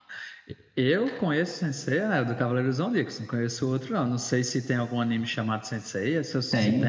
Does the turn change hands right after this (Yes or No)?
Yes